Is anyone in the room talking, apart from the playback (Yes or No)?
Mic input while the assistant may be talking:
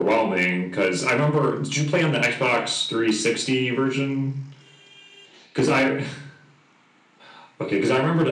No